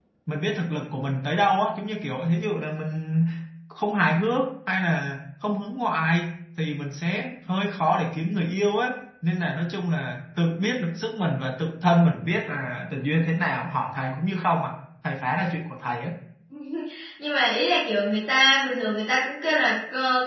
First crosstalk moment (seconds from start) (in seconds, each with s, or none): none